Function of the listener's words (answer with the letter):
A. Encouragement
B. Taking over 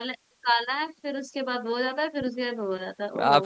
B